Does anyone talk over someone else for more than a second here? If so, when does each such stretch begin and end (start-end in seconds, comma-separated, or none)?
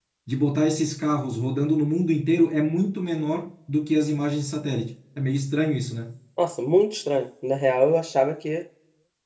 none